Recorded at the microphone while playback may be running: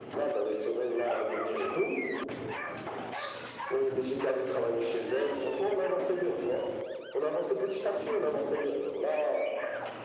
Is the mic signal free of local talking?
Yes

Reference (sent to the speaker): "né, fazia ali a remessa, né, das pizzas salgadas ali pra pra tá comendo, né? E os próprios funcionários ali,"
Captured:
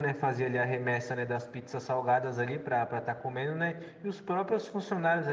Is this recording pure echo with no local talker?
Yes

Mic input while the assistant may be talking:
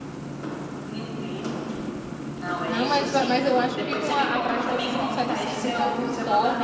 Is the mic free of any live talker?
No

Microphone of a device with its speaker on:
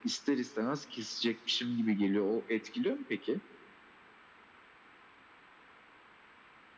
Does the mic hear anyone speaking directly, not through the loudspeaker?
No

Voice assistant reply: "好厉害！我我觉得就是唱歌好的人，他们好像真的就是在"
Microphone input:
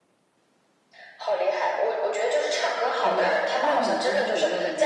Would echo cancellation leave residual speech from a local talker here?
Yes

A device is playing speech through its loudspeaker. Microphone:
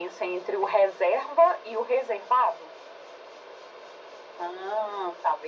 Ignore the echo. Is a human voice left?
No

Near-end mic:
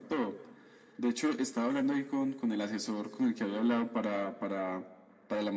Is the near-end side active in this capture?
No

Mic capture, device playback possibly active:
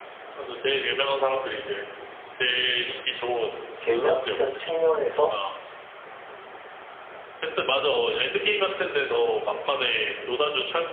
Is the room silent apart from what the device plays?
No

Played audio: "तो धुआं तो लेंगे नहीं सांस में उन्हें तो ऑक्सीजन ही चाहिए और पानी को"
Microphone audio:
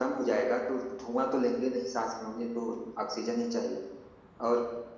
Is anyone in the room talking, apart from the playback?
No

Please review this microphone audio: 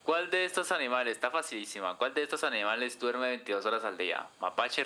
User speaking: No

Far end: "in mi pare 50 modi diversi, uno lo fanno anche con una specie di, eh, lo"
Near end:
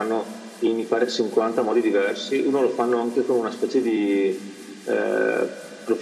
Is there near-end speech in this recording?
No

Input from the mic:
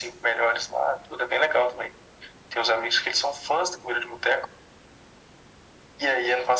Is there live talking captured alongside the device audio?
No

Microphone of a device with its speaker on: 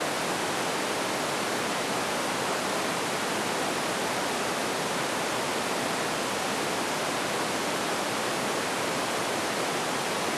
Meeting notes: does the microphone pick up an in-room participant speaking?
No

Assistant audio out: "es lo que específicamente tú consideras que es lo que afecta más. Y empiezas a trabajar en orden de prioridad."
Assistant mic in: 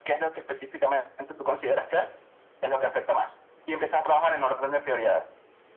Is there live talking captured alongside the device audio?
No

